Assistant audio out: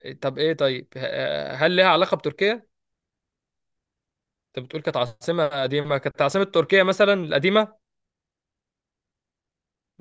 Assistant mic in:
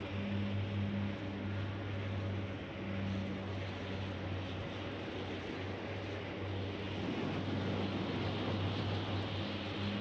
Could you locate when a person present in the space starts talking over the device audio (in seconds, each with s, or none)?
none